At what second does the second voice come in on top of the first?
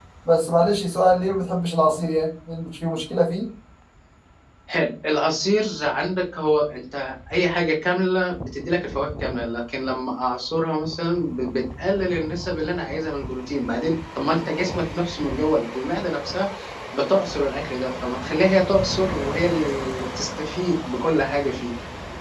none

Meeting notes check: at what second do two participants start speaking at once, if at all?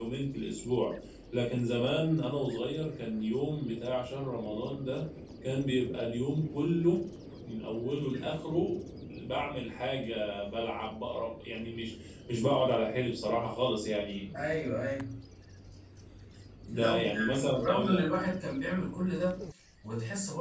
16.7 s

